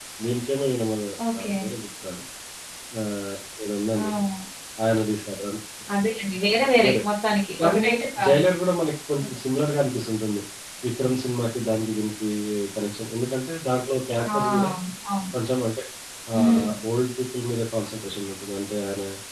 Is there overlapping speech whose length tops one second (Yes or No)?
No